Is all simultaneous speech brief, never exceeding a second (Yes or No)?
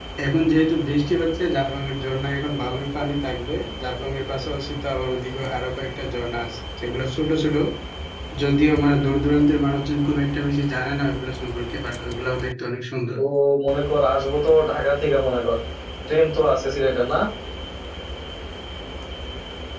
Yes